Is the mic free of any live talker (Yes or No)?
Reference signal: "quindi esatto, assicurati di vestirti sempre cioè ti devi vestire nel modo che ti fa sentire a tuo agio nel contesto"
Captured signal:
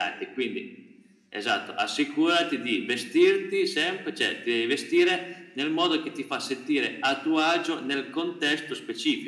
Yes